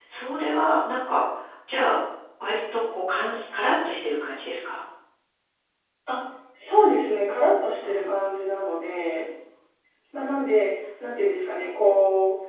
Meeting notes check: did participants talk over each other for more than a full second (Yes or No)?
No